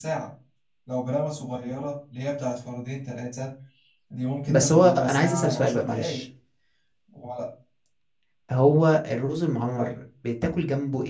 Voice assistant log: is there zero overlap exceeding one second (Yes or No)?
No